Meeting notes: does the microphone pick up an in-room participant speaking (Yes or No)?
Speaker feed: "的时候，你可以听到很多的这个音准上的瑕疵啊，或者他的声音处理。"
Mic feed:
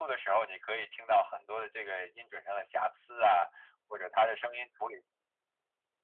No